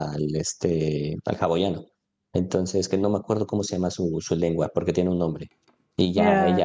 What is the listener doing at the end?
listening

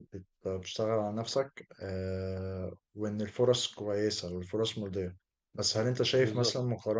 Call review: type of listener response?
listening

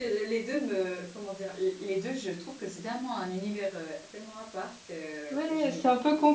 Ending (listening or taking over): taking over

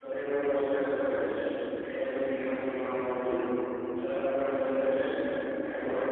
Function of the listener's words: listening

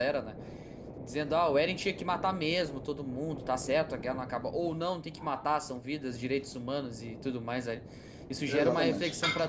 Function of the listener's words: listening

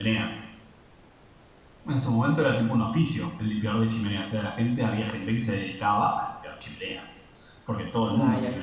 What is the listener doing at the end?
listening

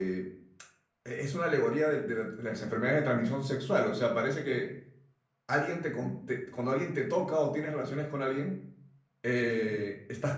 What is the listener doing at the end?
listening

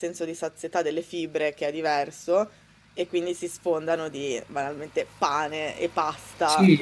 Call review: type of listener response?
taking over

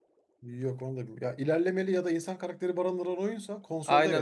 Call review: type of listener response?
taking over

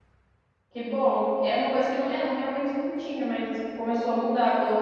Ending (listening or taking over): listening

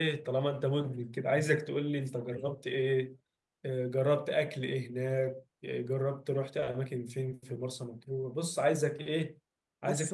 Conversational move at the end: listening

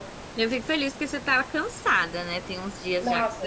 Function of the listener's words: taking over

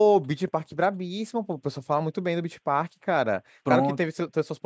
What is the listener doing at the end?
listening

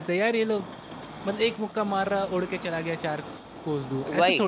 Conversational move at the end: taking over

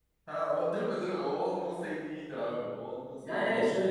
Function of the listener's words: taking over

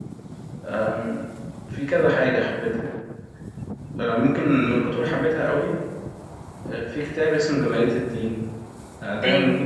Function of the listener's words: listening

